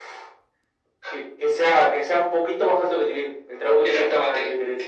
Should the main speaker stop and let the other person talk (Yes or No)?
Yes